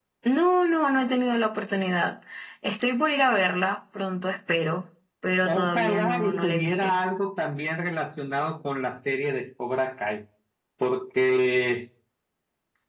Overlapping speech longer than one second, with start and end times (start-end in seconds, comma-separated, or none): 5.4-7.0